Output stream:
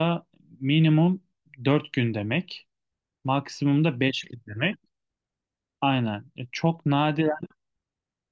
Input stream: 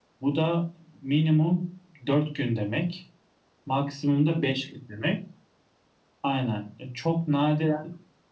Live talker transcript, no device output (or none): none